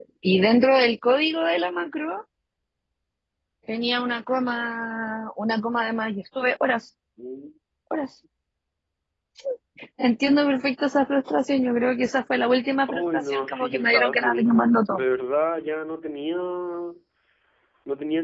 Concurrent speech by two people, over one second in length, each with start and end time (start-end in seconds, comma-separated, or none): 12.9-15.0